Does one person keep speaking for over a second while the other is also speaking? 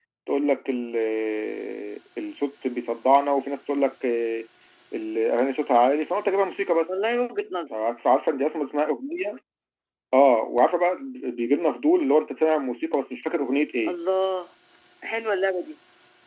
No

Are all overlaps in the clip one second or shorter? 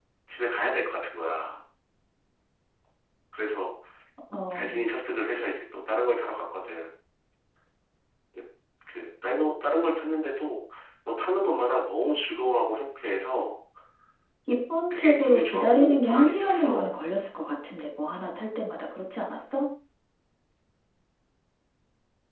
No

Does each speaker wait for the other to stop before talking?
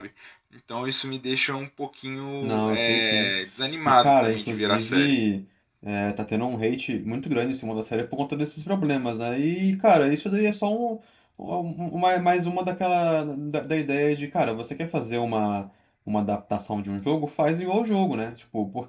No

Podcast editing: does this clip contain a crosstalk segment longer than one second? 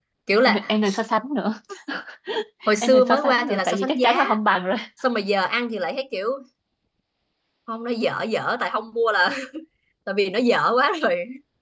Yes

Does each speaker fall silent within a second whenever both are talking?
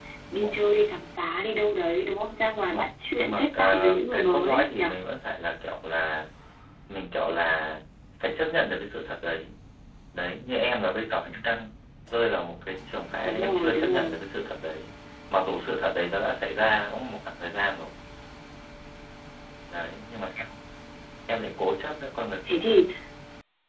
No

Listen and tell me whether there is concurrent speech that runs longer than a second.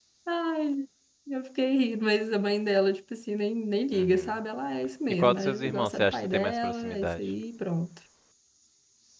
Yes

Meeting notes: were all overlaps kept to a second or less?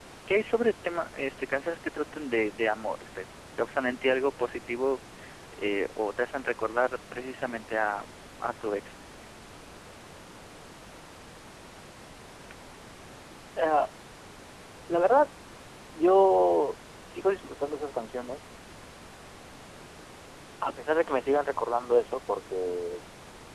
Yes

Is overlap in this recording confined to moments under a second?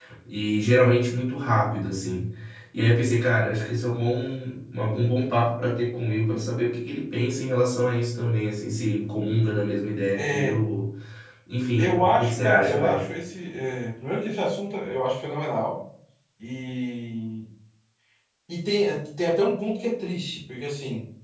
No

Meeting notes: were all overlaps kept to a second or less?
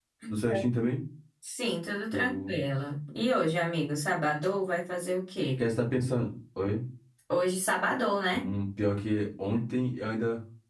Yes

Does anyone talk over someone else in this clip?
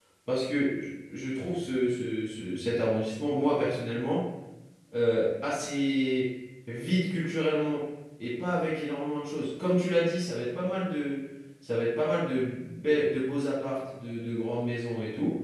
No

